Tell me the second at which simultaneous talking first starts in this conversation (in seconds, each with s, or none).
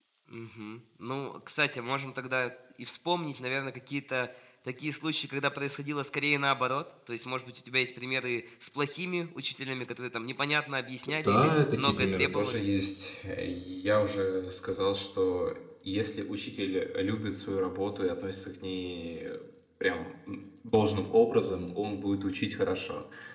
11.2 s